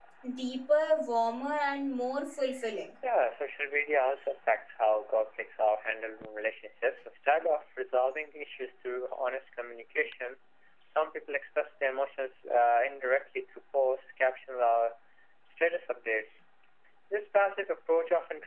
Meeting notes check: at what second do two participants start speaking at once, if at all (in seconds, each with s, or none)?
none